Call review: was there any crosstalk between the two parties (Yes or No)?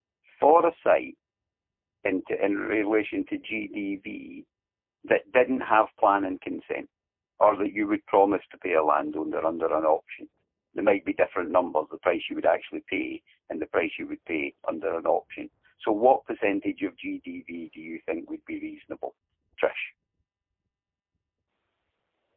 No